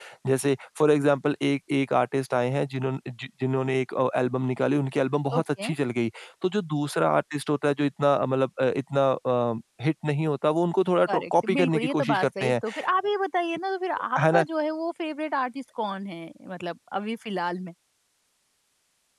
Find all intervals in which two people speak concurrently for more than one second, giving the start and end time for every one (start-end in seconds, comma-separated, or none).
11.1-12.6